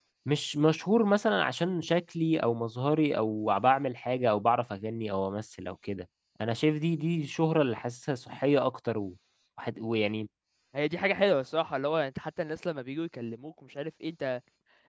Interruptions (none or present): none